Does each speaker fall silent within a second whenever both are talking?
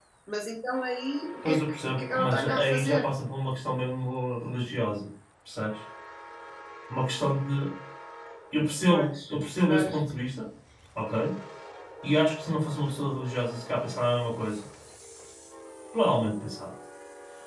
No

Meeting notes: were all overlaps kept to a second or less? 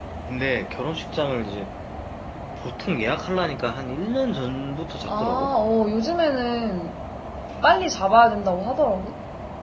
Yes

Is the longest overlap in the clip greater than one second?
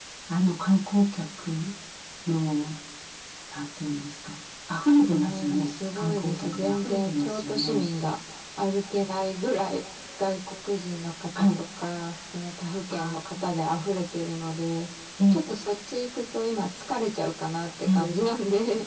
Yes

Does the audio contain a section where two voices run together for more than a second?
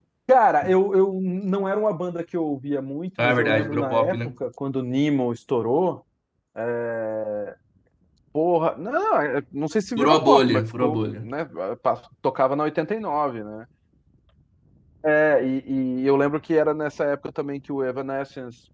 Yes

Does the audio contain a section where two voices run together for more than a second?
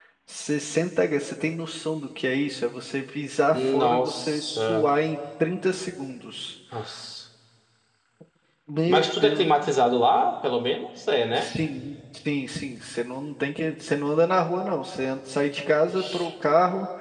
Yes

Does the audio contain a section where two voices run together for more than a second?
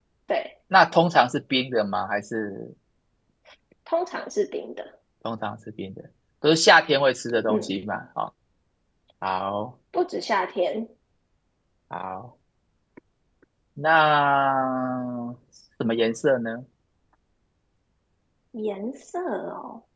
No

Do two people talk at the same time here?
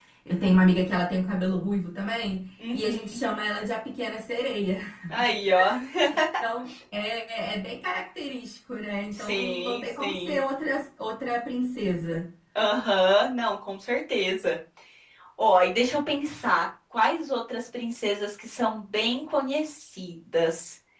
Yes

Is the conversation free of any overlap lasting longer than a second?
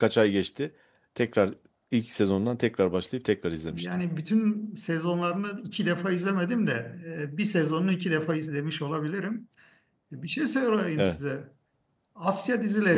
Yes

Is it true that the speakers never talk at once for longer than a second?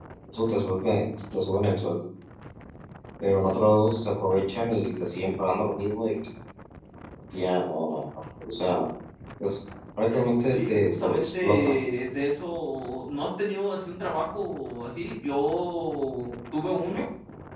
No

